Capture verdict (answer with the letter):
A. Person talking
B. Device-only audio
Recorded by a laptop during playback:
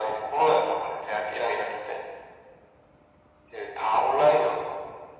B